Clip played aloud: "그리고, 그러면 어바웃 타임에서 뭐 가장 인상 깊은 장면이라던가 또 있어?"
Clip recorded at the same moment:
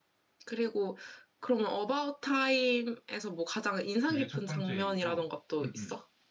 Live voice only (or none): 그게 첫 번째 이유고 음, 음.